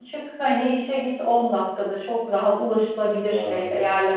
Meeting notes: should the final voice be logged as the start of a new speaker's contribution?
No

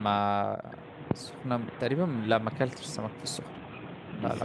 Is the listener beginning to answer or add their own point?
Yes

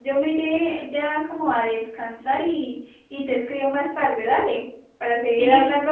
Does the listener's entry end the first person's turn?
No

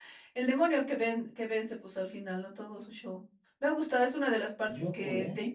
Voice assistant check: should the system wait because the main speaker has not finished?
Yes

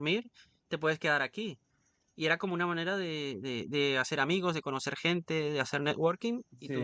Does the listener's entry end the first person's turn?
No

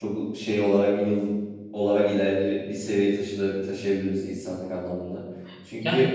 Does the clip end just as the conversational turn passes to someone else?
No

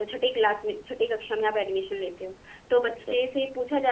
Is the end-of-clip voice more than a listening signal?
No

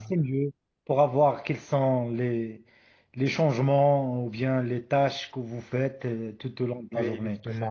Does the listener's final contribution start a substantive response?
Yes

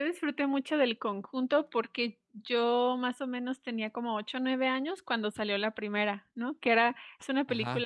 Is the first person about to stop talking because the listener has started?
No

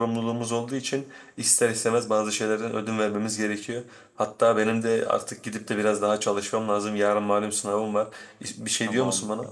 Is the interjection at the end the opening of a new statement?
Yes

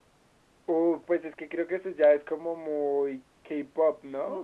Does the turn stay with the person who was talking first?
No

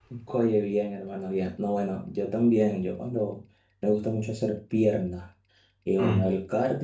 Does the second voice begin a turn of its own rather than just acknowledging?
No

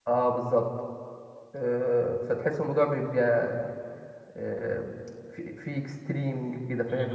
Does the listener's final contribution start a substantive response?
Yes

